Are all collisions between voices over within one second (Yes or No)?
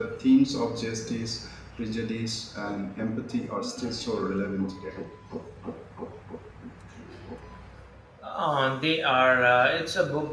Yes